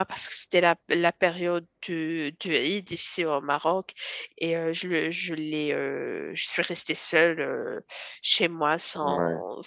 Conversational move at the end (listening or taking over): listening